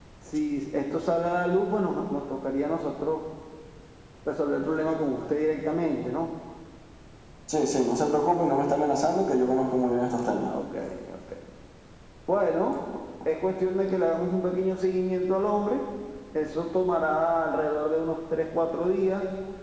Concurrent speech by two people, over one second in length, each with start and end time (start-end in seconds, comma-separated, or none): none